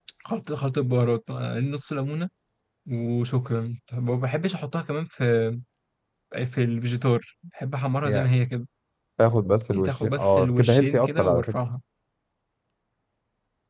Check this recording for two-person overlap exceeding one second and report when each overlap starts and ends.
9.7-11.6

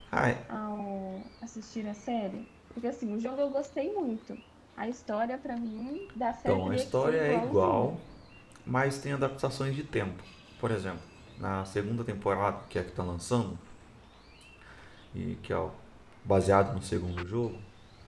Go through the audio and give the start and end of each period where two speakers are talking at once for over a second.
6.3-8.0

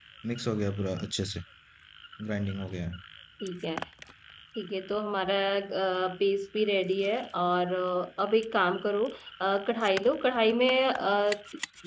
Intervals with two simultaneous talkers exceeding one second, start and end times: none

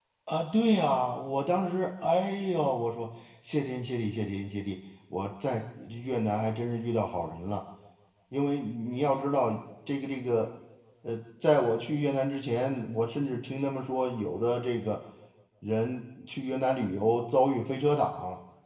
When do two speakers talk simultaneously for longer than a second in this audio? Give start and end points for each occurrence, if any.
none

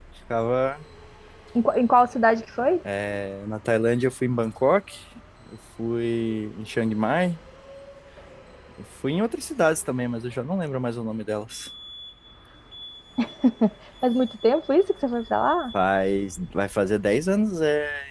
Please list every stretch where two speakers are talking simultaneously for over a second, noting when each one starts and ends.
none

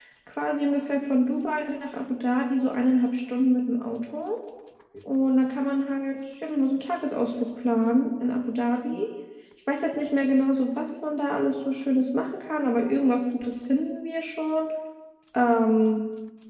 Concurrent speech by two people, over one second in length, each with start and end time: none

